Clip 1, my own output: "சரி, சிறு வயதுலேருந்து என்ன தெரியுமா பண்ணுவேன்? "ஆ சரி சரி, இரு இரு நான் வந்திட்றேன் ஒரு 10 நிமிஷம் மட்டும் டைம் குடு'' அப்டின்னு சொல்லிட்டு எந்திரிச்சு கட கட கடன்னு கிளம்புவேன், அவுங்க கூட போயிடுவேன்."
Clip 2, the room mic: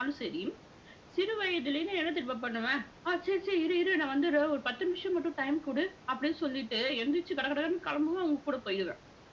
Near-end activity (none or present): none